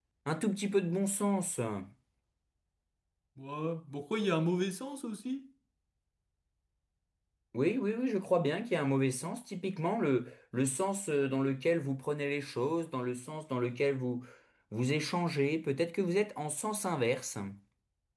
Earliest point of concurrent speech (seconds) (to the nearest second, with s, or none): none